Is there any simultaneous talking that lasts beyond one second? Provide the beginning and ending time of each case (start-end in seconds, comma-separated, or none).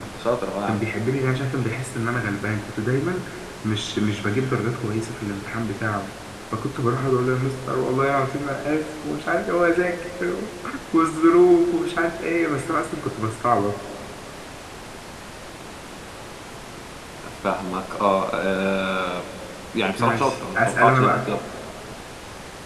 20.0-21.3